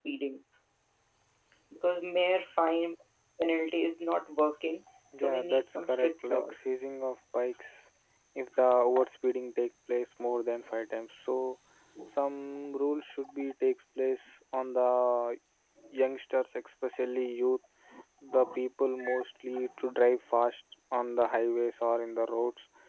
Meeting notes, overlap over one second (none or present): present